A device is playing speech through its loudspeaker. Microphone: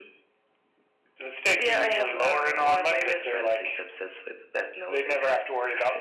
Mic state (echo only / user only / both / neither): echo only